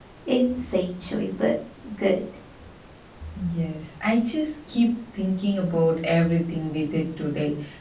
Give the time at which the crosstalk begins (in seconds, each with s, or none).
none